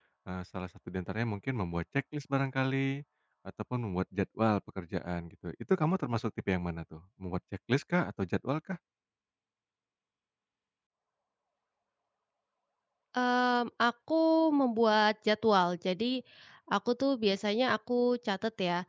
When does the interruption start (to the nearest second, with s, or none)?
none